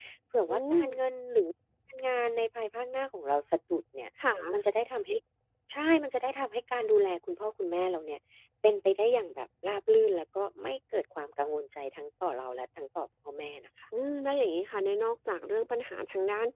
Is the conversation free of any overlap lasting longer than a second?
Yes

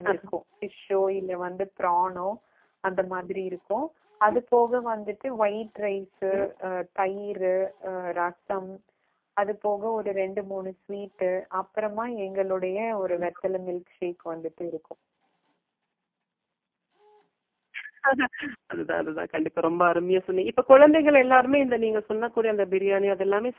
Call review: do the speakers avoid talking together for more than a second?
Yes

